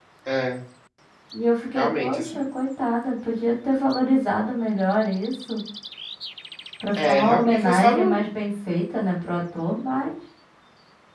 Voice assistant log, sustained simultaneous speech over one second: present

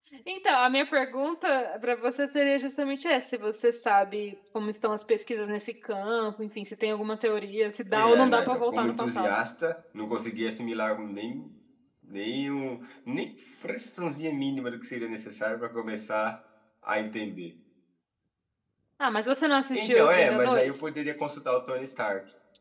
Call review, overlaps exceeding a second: present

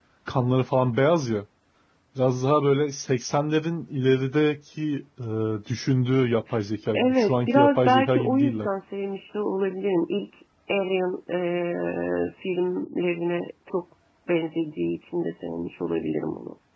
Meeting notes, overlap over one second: present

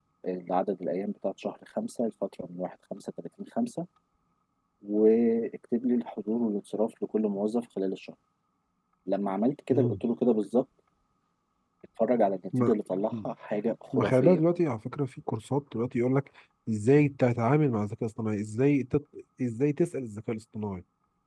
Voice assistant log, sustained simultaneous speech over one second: none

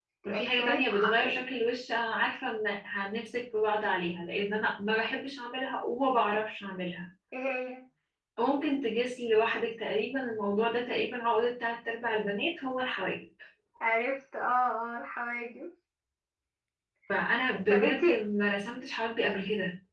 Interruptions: present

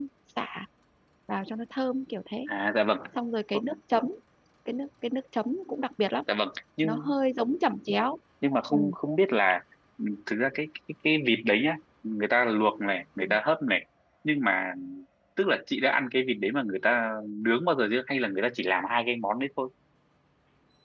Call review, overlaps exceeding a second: none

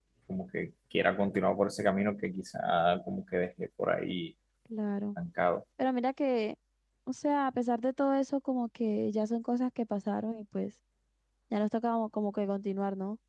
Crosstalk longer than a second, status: none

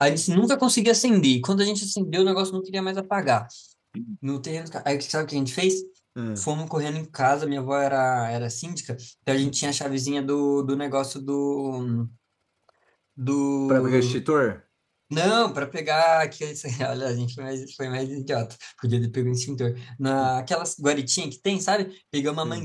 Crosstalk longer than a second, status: none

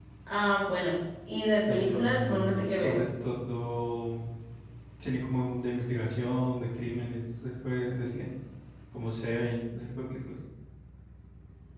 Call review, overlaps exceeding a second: present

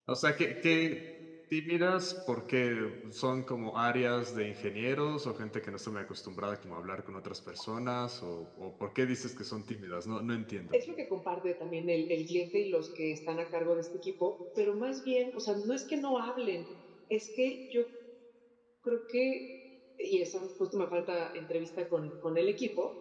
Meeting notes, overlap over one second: none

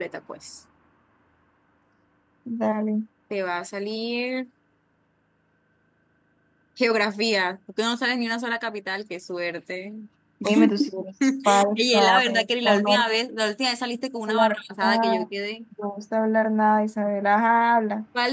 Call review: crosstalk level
present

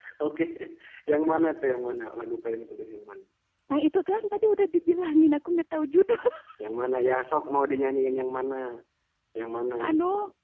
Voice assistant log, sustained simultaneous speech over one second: none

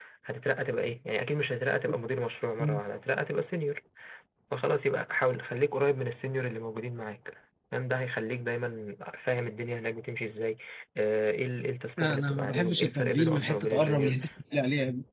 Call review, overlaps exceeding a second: present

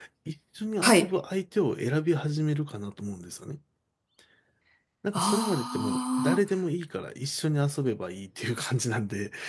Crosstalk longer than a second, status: present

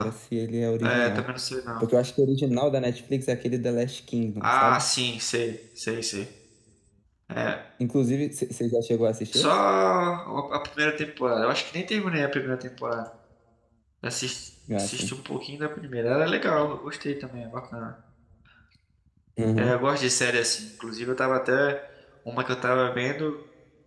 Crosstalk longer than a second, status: none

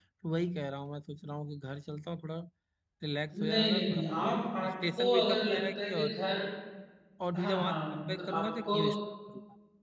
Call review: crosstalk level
present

